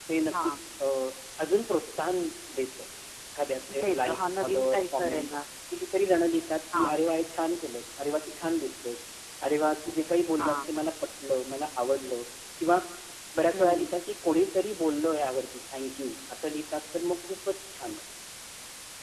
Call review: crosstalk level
present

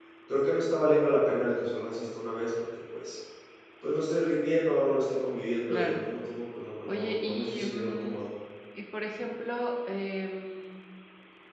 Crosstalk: present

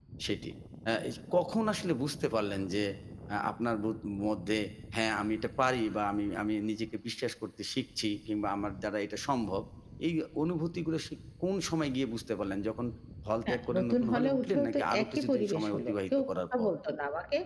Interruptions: present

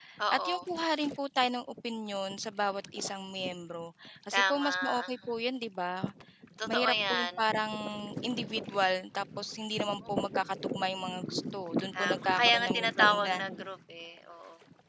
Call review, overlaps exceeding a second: present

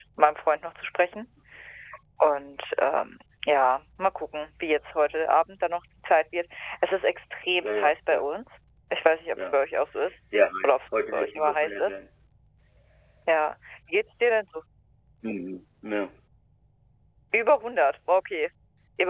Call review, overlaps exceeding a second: present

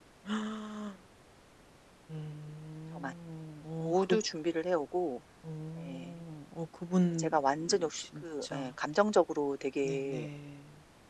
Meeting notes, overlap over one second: present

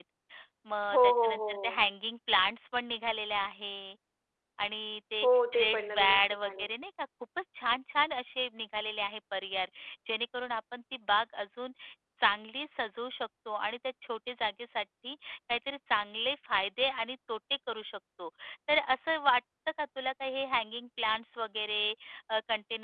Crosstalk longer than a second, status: present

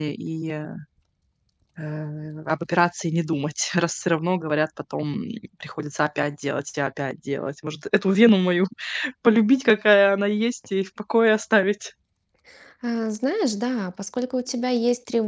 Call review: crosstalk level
none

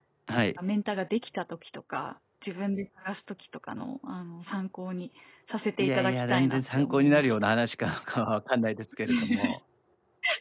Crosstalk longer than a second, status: present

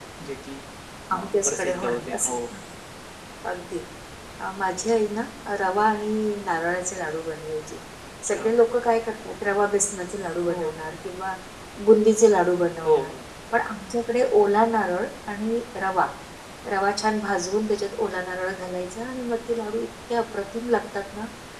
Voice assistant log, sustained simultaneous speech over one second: present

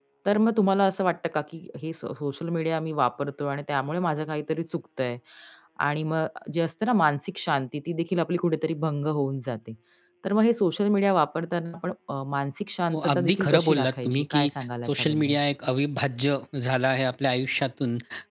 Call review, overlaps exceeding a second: present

